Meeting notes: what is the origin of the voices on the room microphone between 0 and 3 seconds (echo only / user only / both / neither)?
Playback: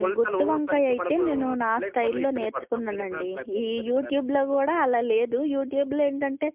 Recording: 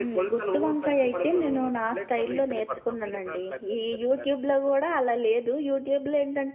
echo only